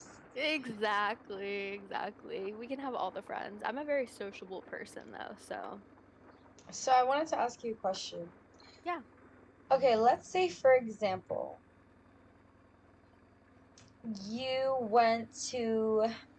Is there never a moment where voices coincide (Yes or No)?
Yes